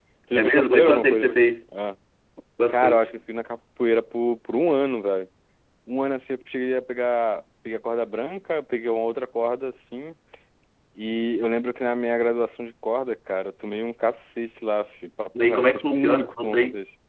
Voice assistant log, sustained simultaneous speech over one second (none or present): present